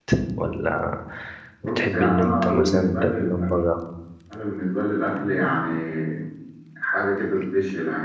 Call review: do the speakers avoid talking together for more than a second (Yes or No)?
No